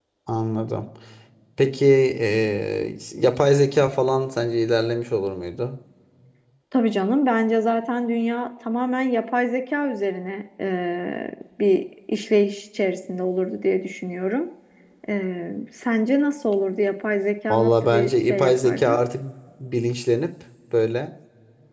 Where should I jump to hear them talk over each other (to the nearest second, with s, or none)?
18 s